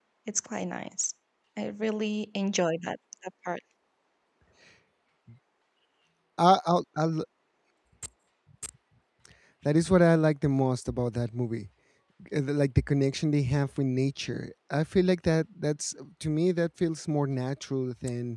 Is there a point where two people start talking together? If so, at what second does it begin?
none

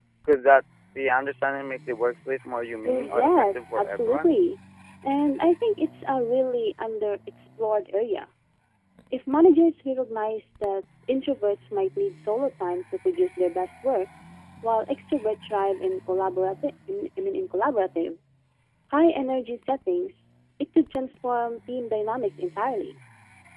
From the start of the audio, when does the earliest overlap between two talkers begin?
2.9 s

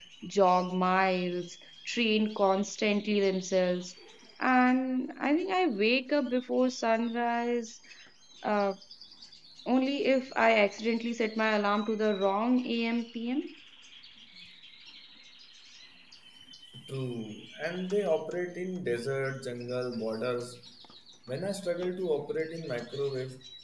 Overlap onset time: none

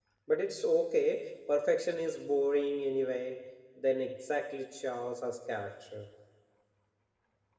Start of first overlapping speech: none

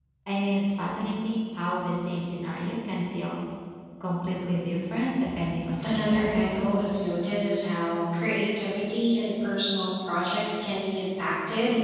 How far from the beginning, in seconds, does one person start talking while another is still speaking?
5.8 s

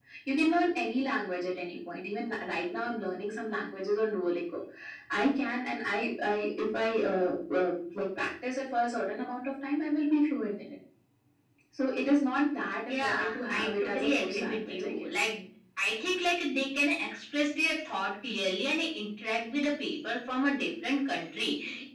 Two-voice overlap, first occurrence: 12.9 s

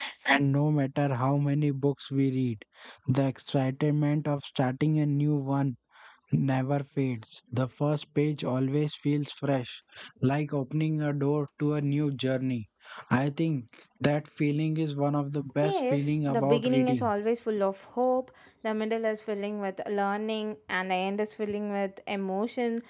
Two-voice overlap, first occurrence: 15.6 s

